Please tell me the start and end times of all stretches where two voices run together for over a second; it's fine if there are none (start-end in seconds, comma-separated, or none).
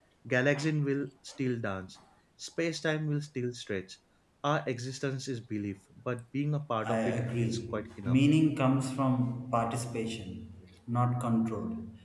6.8-8.2